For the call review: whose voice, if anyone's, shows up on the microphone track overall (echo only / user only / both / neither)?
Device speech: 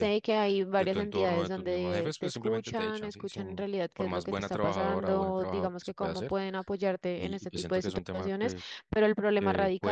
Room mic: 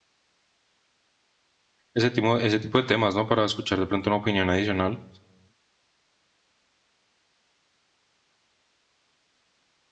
user only